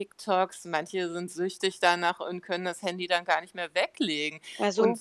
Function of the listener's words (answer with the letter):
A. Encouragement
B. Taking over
A